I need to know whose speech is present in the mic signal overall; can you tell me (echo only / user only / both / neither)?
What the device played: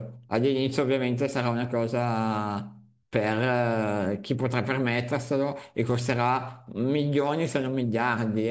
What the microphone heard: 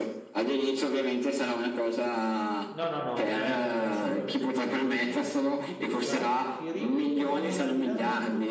both